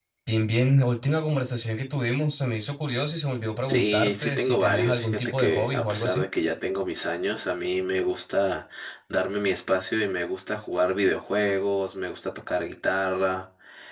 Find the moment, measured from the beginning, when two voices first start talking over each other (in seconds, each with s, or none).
3.7 s